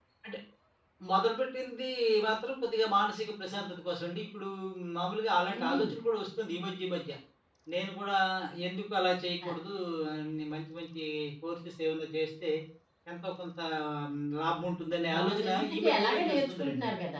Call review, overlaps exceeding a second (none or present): present